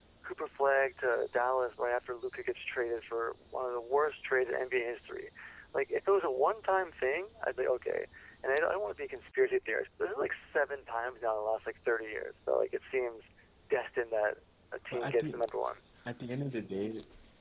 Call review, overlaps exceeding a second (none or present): none